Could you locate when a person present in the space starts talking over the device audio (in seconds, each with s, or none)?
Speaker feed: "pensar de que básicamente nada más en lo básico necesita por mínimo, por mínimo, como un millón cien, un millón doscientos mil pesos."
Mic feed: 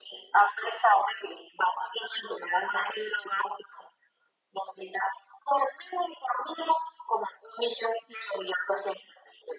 none